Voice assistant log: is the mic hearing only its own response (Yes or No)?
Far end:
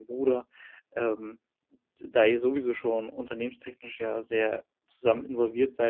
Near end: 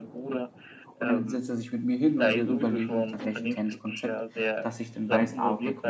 No